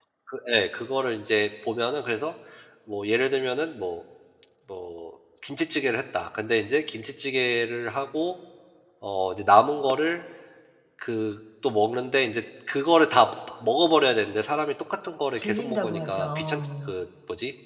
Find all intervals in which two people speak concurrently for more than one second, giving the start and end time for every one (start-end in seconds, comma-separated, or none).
15.4-16.9